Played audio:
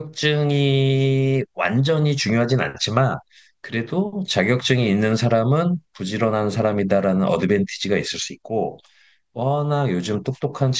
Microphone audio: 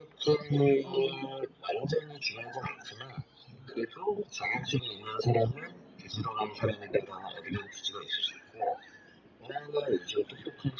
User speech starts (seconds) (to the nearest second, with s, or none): 1 s